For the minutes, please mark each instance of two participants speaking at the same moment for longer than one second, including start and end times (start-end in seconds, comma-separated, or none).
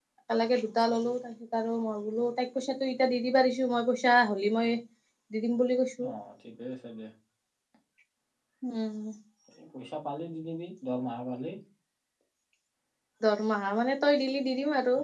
none